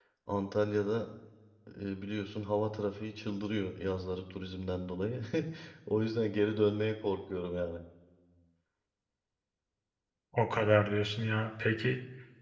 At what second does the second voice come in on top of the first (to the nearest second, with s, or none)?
none